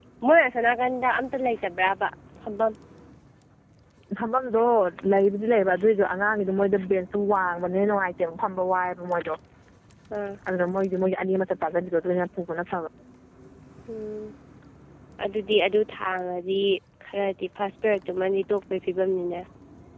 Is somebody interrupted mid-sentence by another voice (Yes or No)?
No